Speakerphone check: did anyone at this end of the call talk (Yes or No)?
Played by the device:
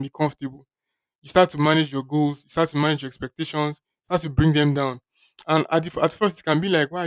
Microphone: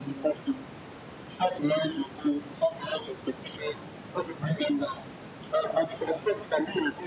No